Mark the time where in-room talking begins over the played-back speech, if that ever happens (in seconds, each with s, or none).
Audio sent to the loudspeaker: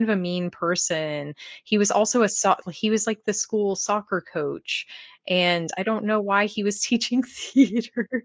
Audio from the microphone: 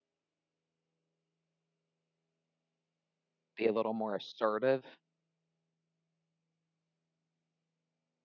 3.6 s